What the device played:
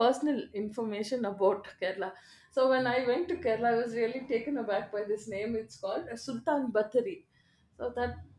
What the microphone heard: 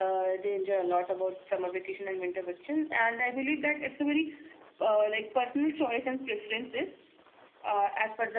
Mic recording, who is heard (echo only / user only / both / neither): user only